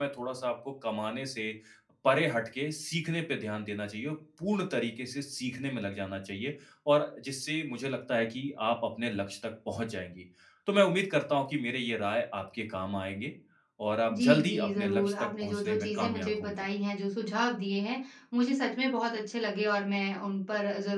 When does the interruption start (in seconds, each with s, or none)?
14.1 s